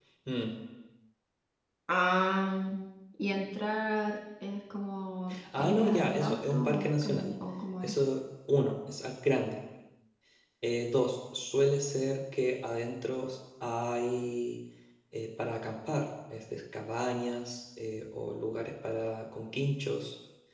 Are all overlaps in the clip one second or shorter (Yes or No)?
No